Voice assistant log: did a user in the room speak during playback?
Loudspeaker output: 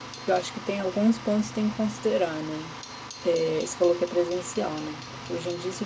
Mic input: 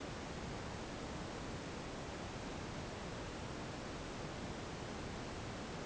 No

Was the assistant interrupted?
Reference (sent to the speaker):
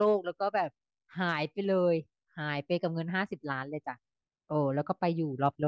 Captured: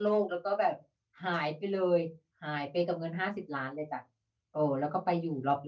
No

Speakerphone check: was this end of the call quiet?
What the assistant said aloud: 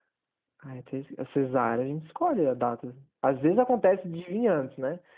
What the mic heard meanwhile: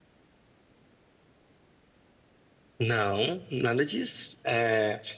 No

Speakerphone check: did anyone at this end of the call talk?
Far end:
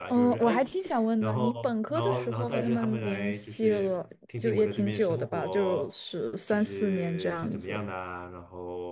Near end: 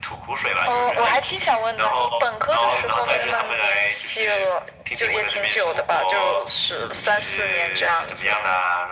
No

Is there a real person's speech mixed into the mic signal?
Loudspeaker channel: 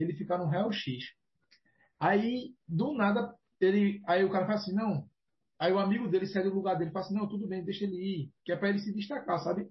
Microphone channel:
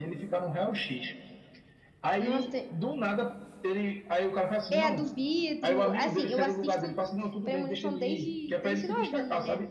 Yes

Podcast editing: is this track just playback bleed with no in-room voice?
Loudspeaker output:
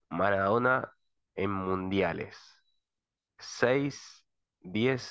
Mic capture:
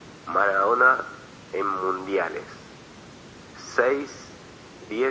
Yes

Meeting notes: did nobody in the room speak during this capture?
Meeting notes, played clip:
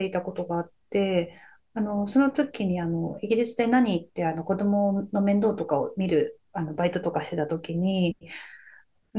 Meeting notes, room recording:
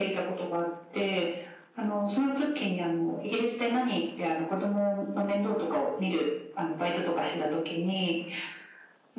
Yes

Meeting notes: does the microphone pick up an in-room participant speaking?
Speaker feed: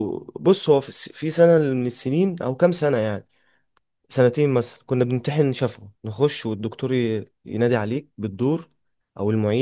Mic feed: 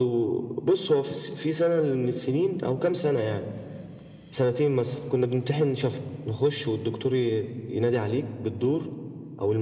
No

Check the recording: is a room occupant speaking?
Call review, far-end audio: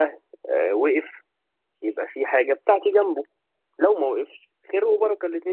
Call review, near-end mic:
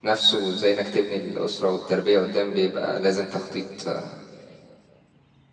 Yes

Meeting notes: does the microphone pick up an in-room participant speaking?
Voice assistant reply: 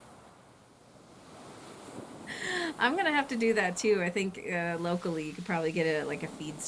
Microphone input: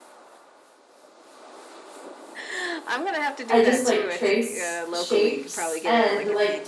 Yes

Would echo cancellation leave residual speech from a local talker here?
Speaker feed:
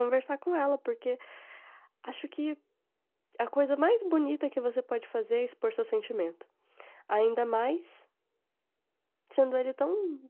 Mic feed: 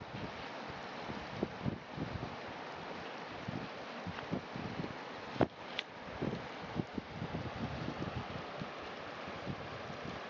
No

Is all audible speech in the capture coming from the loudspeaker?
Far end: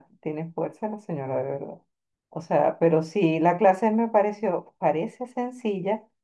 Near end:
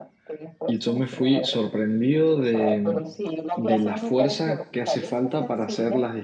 No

